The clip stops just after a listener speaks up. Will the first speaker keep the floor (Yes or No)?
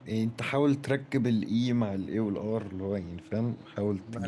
No